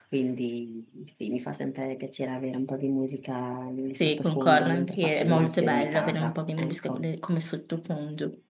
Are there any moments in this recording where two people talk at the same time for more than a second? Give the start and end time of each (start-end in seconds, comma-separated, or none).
4.0-7.0